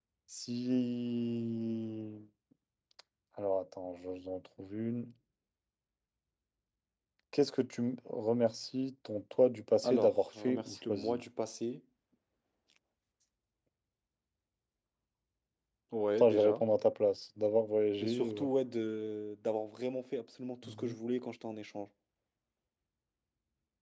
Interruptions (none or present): present